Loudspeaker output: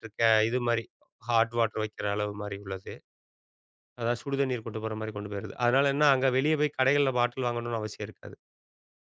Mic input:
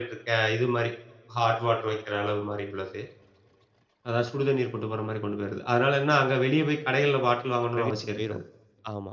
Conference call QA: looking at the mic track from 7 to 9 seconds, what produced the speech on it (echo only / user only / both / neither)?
both